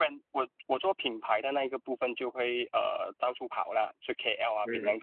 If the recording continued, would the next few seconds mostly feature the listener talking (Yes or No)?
Yes